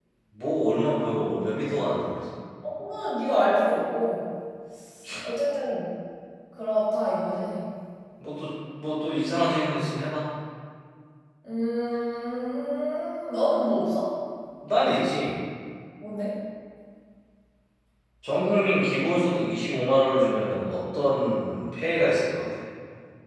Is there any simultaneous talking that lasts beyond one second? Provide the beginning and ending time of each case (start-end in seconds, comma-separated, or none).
none